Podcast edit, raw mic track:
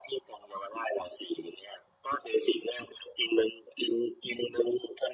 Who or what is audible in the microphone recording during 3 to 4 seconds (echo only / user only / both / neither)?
echo only